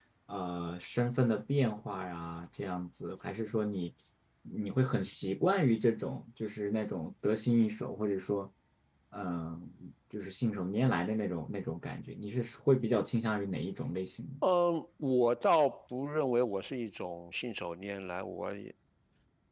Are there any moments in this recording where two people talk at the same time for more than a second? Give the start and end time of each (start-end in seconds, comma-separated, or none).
none